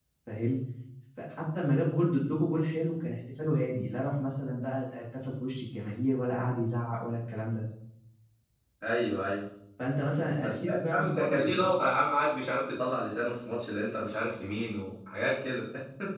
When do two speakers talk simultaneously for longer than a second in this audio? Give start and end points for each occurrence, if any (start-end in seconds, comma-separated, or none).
10.4-11.7